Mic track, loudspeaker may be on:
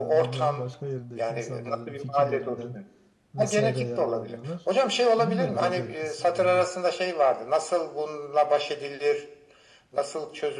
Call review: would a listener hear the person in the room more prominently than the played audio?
No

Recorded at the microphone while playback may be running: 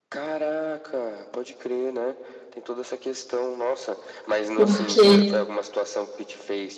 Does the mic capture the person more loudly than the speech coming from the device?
Yes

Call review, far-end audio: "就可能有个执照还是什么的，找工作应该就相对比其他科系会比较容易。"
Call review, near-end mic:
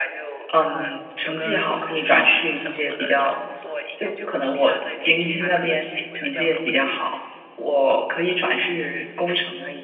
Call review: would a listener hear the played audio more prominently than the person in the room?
No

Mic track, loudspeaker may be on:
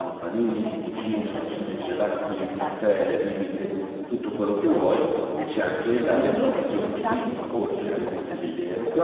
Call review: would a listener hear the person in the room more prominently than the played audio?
Yes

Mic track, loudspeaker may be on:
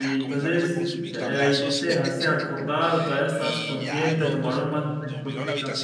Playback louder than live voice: No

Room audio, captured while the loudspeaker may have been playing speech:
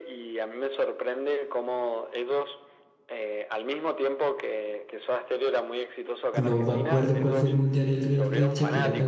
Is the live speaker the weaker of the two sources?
No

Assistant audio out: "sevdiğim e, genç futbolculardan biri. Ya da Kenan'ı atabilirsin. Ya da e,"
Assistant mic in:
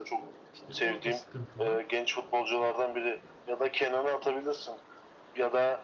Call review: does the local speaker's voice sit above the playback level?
No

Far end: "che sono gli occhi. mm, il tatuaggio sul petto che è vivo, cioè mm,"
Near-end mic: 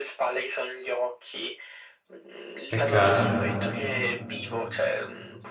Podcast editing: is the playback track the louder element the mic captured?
No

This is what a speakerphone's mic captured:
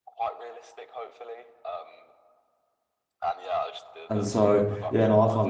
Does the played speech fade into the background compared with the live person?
Yes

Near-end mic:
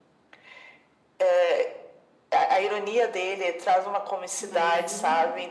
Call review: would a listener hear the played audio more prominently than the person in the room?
Yes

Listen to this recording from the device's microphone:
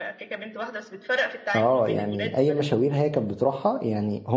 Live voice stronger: Yes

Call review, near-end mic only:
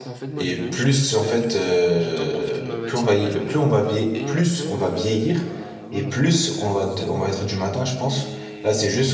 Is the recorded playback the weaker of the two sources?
Yes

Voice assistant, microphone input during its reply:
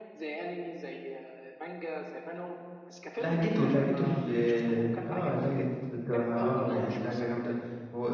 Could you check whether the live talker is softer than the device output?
No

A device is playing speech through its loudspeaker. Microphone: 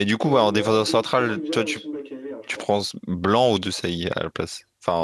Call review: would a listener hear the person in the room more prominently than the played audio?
Yes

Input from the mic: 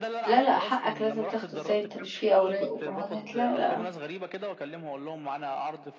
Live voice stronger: Yes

